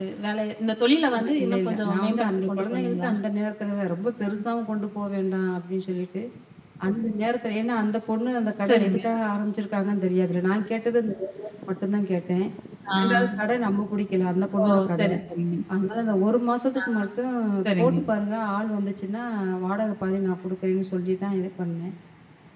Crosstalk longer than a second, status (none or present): present